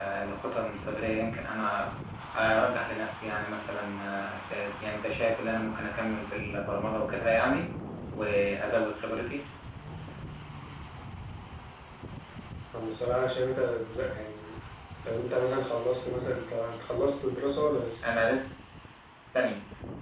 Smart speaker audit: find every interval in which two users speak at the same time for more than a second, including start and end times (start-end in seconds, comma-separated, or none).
none